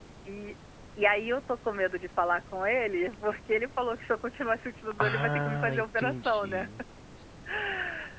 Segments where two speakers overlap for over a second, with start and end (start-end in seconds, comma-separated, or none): 5.0-6.7